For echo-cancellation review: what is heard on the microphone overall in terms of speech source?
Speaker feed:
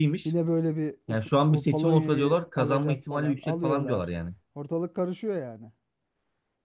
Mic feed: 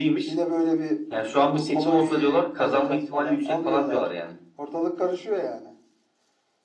echo only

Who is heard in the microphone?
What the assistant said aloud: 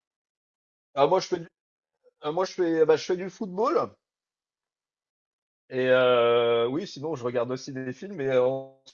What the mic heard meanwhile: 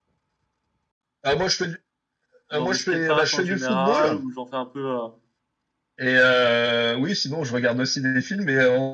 both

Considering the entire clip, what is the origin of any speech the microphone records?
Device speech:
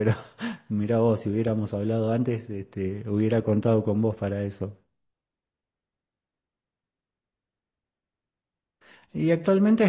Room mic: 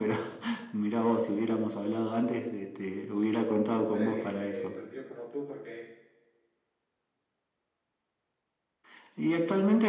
both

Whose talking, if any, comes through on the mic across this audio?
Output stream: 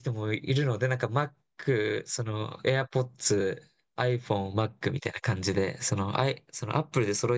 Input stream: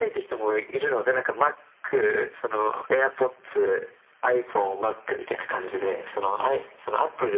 echo only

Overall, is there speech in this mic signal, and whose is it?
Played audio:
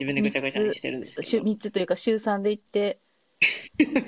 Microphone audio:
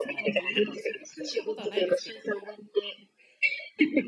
both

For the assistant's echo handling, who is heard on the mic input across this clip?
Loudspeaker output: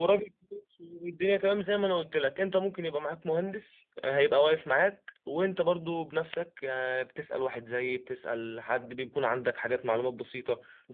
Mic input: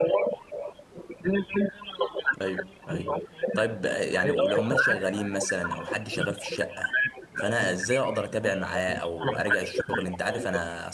both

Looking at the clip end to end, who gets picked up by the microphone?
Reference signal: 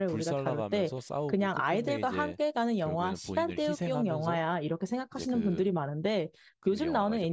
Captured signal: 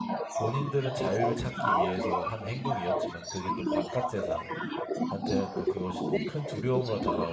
both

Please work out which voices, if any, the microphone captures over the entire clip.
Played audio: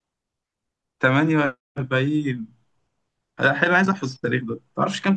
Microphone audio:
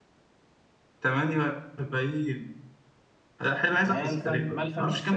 both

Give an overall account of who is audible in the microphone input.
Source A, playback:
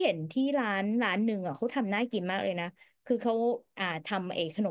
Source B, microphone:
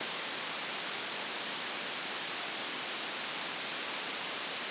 neither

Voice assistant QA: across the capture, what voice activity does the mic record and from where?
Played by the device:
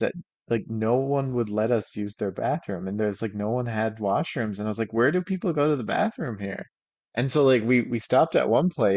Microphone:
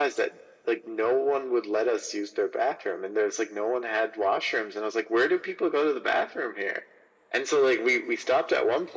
echo only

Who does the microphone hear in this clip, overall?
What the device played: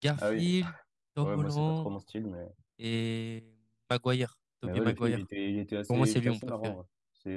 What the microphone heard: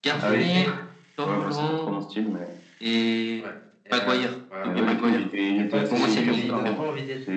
both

